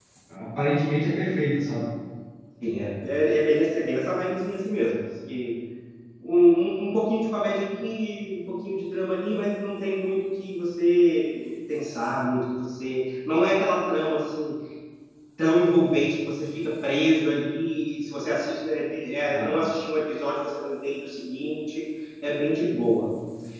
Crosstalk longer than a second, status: none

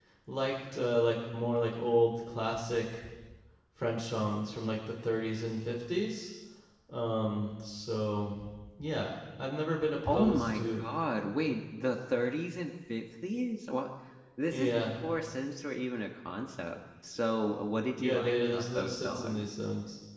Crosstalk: present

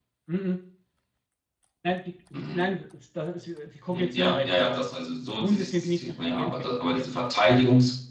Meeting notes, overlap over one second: present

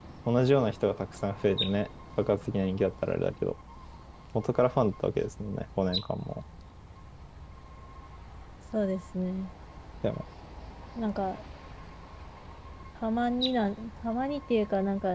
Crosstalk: none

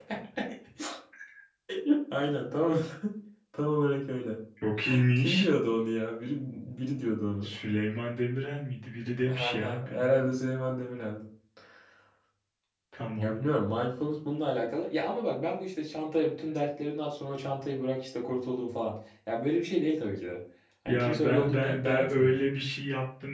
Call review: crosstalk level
present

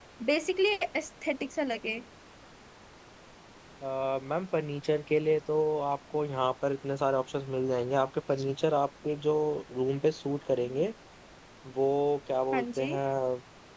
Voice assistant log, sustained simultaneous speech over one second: none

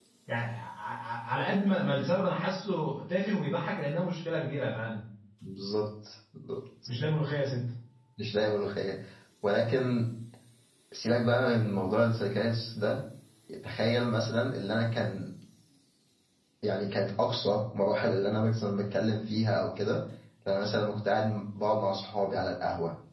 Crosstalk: none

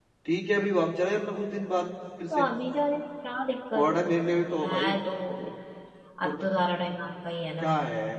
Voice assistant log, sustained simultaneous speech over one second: none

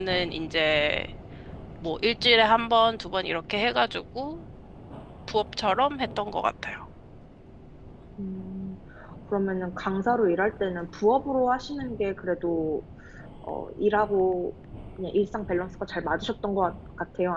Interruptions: none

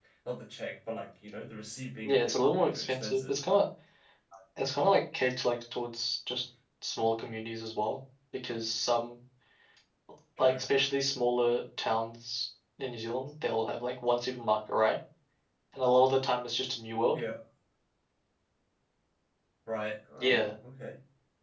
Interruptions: present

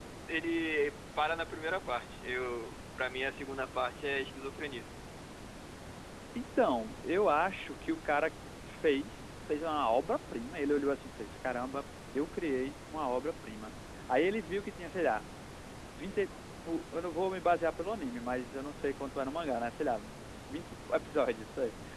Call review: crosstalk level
none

